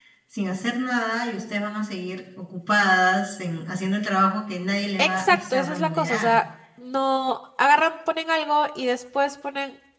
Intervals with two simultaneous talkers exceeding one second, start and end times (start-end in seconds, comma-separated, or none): 5.0-6.4